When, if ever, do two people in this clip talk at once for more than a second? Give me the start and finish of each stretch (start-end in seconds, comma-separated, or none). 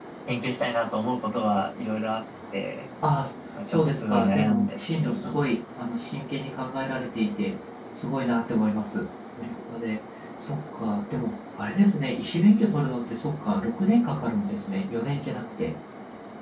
3.6-5.3